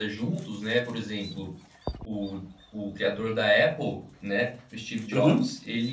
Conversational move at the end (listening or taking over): listening